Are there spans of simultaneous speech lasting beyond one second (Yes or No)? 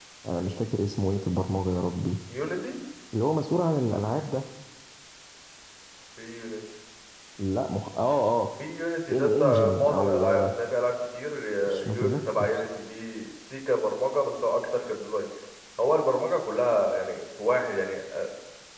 Yes